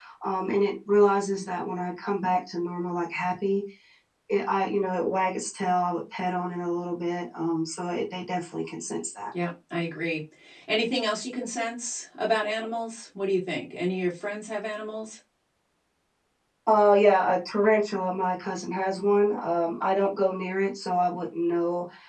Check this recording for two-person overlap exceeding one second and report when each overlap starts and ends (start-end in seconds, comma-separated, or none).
none